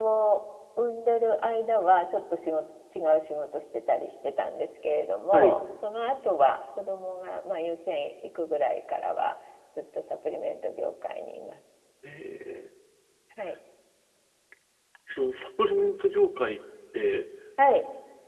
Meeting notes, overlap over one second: none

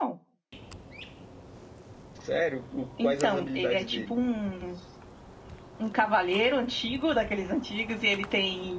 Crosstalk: present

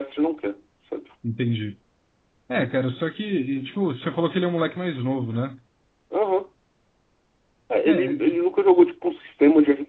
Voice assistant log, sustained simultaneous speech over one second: none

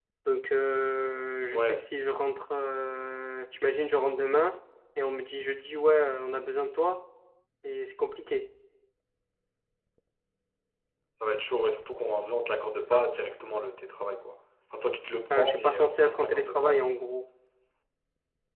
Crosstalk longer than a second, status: present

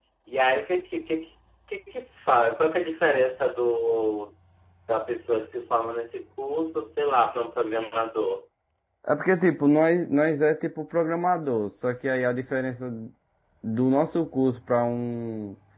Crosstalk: none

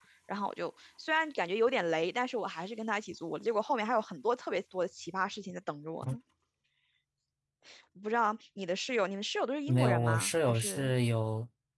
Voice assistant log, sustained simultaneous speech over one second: present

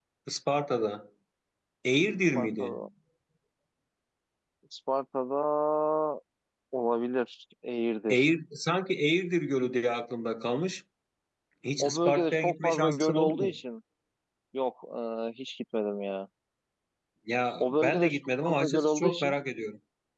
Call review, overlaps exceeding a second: present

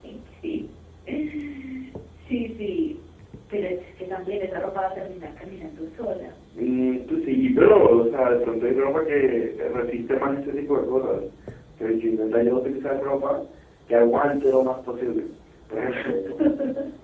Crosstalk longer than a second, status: none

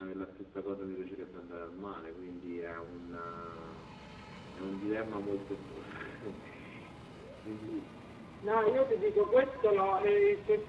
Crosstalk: none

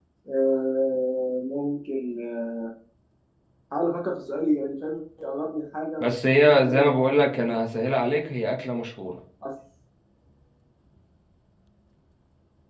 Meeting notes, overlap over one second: present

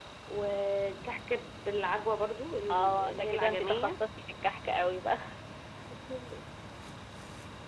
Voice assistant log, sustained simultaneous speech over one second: present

